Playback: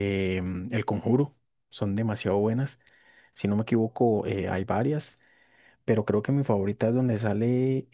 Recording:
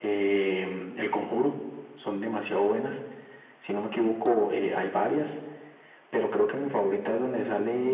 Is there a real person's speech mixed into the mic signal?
No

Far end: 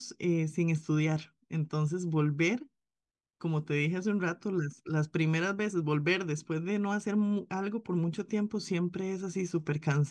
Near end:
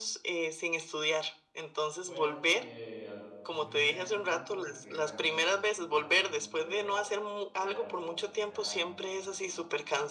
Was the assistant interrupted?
Yes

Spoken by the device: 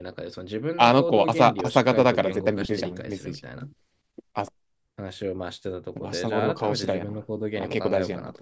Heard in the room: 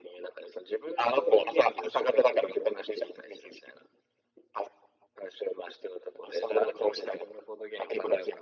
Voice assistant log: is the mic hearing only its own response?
Yes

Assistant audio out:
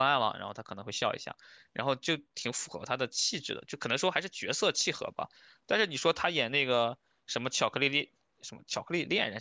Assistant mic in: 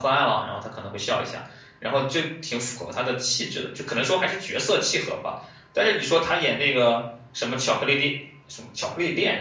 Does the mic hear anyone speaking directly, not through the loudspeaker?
No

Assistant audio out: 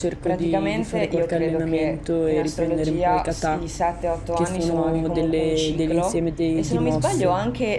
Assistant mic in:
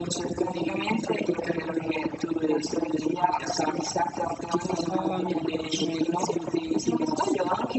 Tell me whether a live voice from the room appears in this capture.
Yes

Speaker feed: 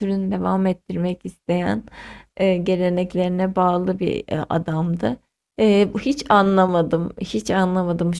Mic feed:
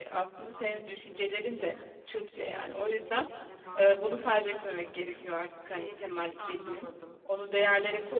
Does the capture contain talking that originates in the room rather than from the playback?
Yes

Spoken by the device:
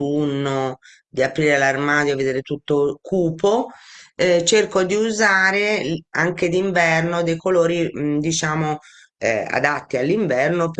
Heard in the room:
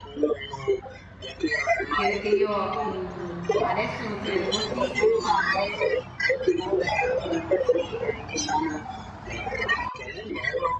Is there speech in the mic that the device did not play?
Yes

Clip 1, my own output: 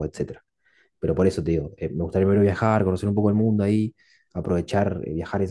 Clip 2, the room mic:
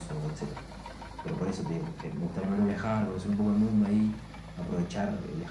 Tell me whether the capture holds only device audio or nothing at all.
Yes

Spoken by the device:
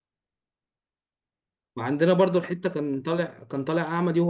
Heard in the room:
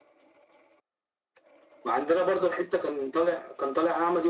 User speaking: No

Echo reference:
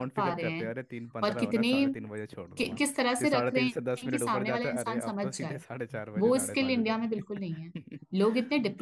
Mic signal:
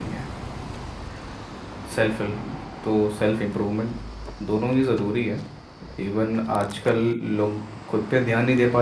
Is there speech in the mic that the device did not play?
Yes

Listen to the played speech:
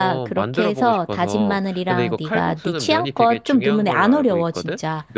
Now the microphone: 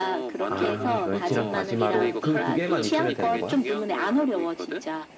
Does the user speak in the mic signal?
Yes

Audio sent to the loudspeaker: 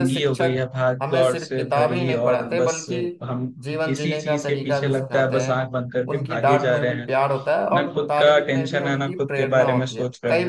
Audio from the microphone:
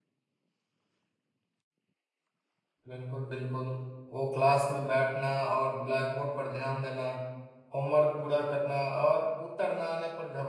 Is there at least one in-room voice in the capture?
Yes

